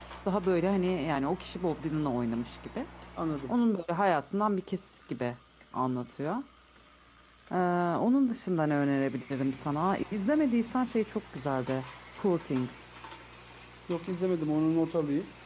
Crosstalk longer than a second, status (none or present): none